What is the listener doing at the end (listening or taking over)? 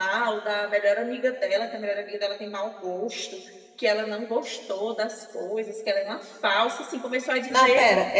taking over